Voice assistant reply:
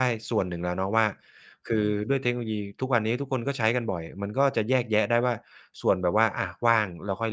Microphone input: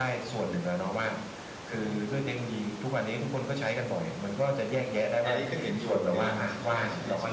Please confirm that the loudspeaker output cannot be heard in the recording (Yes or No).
No